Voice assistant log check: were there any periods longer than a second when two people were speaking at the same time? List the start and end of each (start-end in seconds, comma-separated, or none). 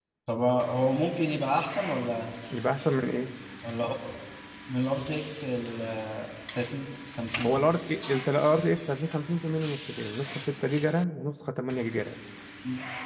none